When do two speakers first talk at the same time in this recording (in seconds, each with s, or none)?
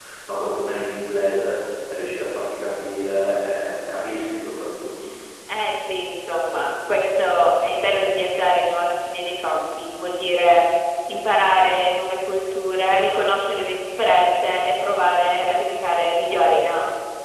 none